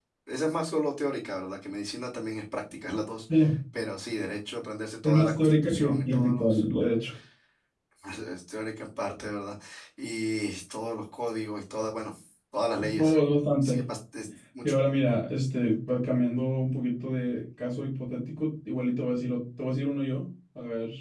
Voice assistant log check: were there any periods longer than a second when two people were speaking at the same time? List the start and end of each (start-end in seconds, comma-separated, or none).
5.0-6.8